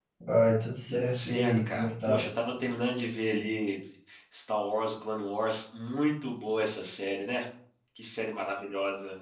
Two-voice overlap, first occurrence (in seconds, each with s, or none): 0.9 s